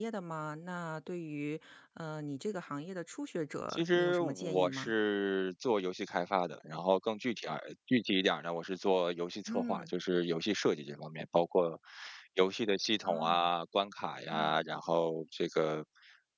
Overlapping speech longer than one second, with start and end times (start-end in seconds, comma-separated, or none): 3.7-4.9